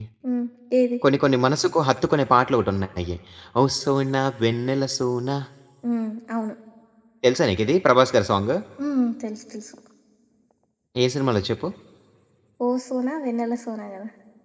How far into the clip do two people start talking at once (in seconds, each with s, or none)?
none